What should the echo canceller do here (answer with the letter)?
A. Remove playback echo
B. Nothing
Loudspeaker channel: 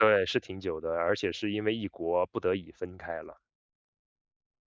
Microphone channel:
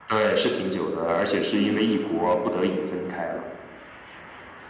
A